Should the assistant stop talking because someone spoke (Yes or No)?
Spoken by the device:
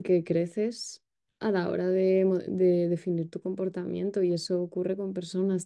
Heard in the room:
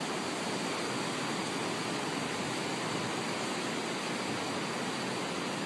No